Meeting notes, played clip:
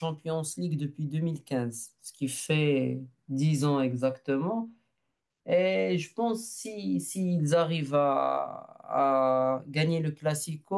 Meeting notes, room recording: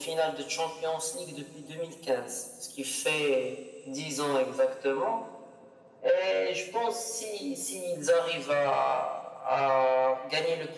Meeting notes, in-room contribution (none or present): none